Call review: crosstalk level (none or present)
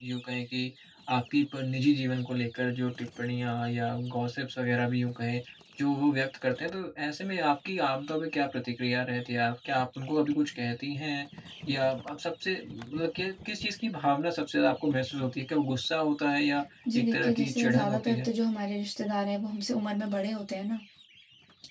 present